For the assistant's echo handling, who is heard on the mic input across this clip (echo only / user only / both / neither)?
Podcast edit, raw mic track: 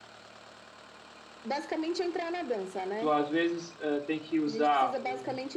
both